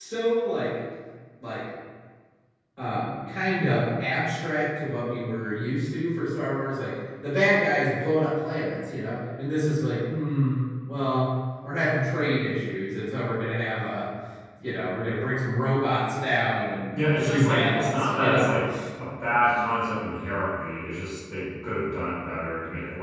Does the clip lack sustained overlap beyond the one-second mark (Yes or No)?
No